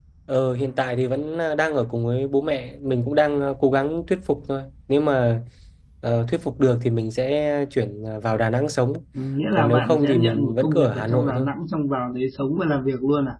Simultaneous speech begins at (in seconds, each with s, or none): 9.6 s